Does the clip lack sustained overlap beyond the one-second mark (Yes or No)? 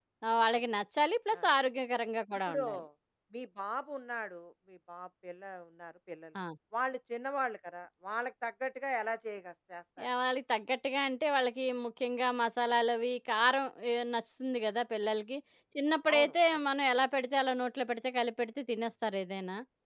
Yes